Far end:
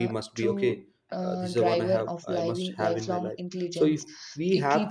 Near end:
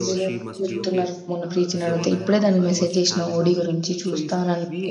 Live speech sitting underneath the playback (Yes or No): No